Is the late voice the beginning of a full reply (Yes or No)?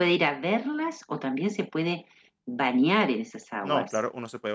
Yes